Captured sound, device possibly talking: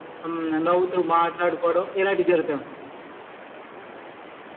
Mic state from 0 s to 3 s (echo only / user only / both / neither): echo only